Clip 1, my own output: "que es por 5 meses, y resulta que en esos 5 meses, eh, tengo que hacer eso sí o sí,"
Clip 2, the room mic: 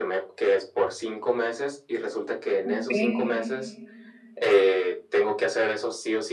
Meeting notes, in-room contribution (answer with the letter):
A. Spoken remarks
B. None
A